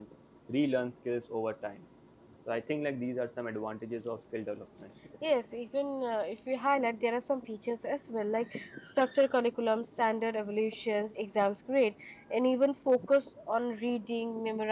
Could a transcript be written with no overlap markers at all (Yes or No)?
Yes